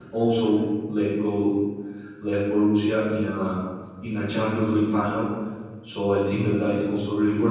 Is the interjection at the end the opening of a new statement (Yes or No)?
No